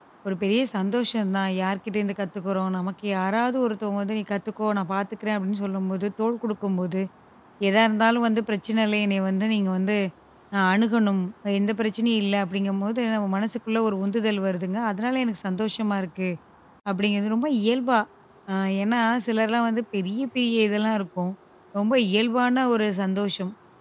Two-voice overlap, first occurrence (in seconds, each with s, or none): none